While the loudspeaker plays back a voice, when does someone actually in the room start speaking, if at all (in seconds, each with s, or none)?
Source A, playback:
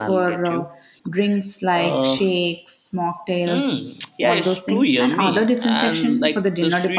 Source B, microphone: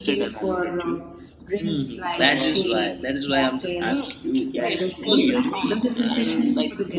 1.6 s